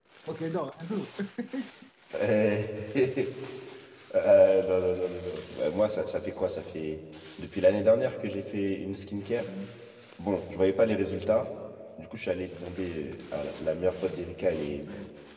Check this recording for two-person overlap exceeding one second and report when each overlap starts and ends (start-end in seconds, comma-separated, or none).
none